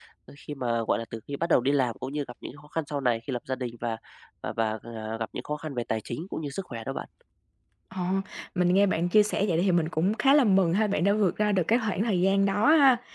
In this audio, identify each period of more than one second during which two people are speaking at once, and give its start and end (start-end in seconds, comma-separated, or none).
none